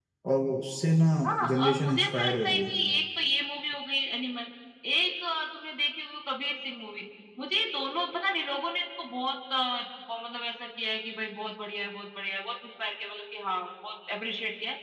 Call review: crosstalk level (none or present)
present